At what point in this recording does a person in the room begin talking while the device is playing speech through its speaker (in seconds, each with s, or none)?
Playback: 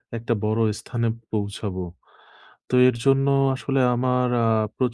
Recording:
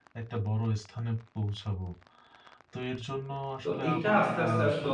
3.6 s